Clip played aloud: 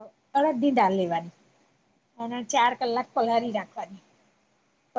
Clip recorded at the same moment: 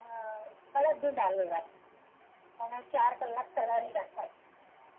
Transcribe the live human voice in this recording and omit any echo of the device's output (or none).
none